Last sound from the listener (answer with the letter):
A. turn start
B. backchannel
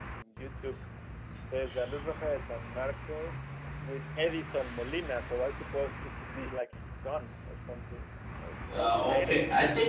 A